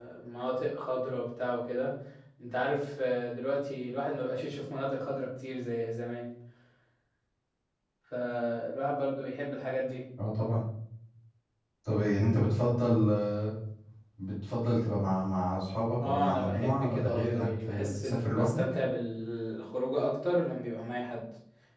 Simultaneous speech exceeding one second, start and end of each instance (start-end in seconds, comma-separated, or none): 16.0-18.6